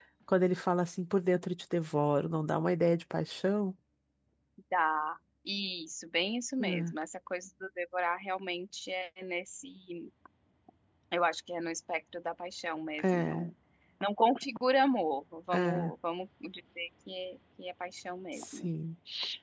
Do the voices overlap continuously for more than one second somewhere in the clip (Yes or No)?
No